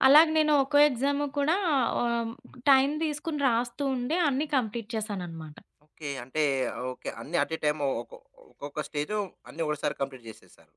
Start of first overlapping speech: none

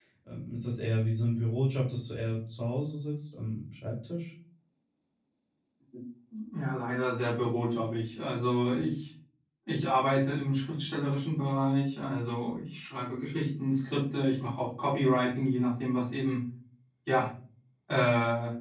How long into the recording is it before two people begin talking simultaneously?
none

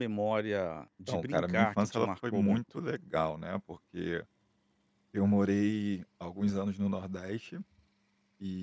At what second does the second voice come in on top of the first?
1.1 s

